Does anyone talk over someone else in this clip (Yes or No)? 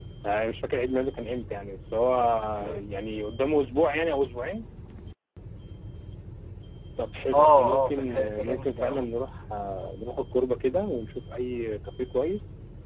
Yes